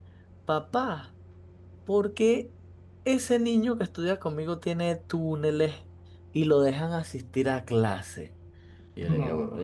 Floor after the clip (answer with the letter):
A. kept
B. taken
A